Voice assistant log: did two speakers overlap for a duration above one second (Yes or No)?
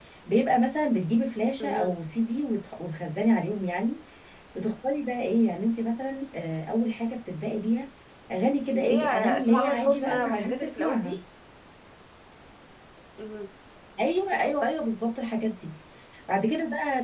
Yes